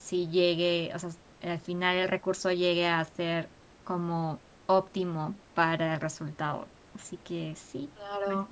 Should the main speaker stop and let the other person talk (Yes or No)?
Yes